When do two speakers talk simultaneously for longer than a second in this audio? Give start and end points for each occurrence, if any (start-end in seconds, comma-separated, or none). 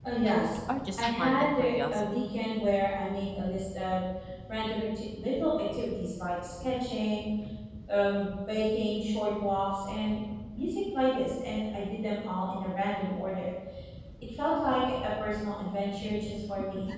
1.0-2.3